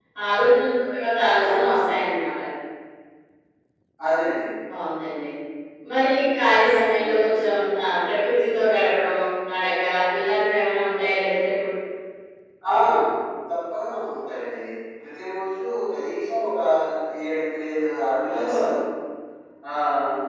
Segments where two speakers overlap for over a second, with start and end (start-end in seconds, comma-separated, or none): none